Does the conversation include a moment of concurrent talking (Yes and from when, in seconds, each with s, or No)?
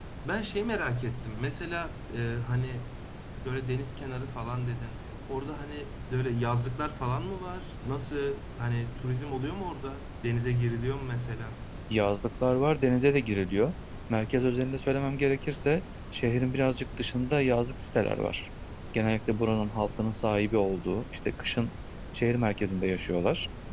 No